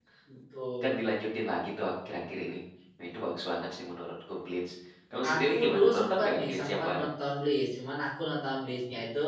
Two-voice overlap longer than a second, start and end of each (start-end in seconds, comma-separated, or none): 5.3-7.0